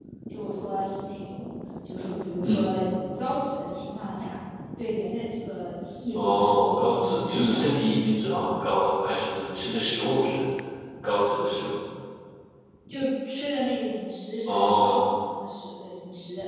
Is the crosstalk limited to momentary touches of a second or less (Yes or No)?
No